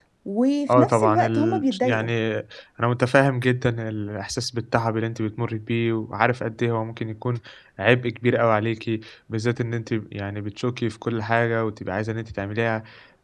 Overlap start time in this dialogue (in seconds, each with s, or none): 0.7 s